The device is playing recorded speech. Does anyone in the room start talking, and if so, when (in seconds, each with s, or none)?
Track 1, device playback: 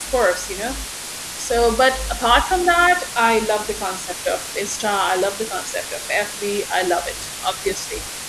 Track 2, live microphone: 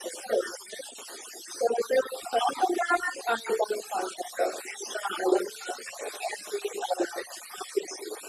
none